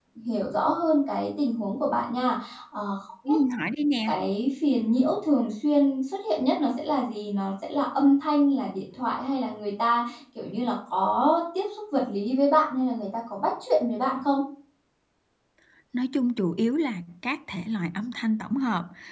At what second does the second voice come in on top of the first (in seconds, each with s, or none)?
none